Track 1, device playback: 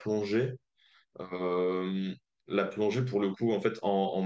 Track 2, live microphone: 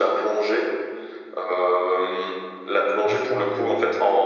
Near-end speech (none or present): present